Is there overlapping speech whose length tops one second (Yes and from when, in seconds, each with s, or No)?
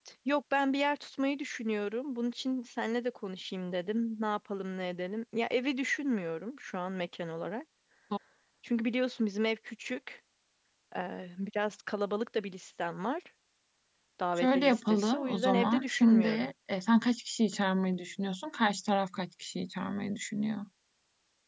Yes, from 14.4 s